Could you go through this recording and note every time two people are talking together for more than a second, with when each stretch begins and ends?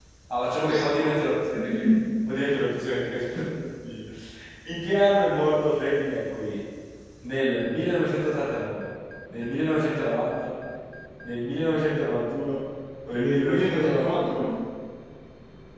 13.1-14.4

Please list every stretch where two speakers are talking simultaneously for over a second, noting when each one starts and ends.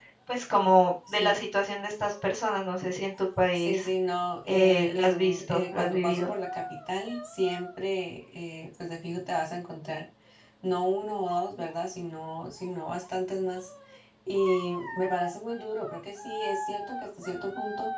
4.5-6.3

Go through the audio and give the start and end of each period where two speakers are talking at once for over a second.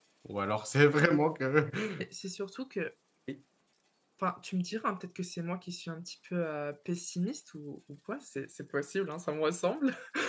none

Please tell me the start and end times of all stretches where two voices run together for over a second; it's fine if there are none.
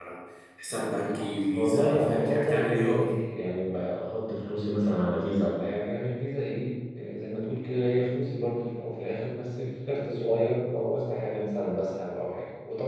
0.7-3.0

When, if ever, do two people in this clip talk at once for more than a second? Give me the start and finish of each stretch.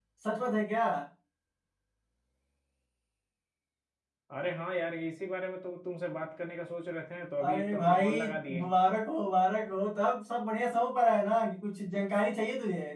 7.4-8.6

